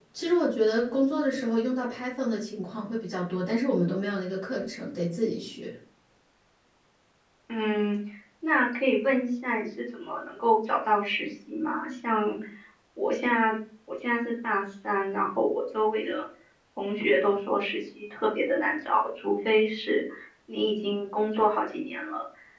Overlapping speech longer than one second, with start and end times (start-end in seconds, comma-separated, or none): none